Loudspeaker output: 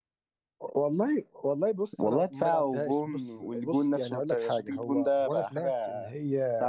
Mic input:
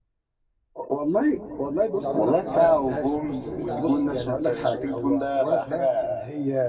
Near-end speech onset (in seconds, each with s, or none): 1.9 s